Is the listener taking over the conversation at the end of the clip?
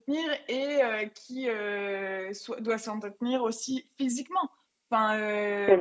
No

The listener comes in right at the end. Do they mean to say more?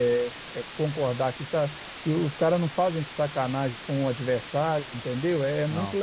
No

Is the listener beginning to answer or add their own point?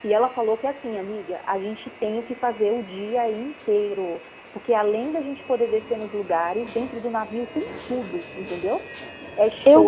No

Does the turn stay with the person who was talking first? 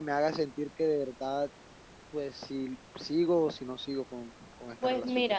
No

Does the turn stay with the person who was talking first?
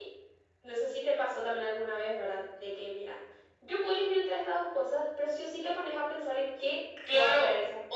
No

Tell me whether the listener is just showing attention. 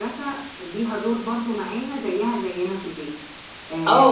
No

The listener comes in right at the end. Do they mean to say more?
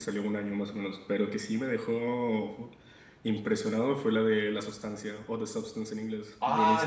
Yes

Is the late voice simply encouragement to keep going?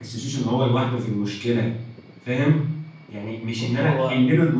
Yes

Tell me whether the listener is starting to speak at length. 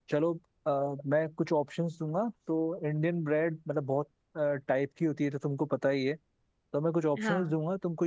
No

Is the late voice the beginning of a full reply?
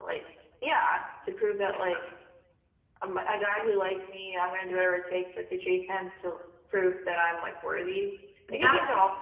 Yes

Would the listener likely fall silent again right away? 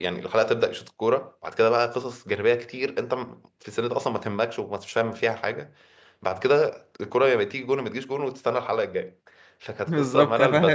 No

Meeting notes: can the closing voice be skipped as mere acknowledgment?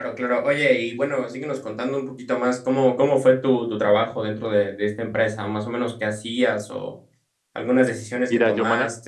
No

